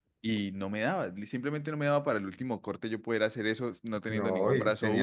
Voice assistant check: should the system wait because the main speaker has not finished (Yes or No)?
No